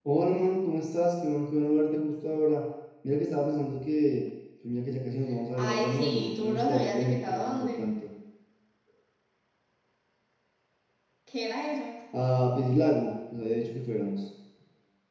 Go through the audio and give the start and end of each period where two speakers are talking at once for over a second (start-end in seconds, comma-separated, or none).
5.5-7.8